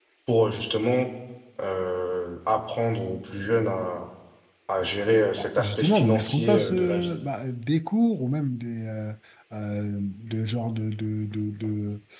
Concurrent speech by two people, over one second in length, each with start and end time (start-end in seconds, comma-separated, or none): 5.4-7.1